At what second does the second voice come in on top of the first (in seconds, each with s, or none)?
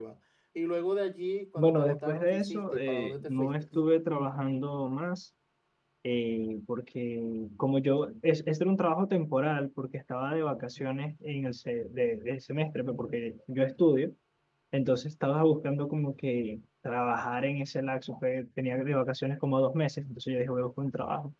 1.6 s